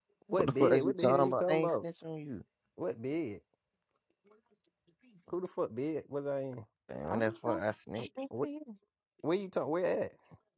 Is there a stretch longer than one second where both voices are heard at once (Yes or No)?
Yes